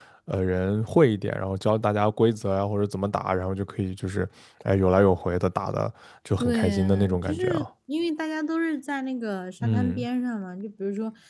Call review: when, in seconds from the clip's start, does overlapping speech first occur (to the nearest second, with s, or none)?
6 s